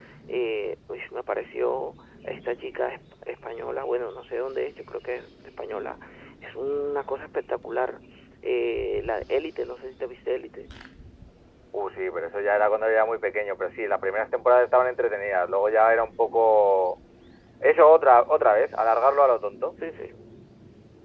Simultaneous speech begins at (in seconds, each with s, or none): none